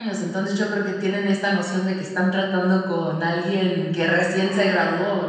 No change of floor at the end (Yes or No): No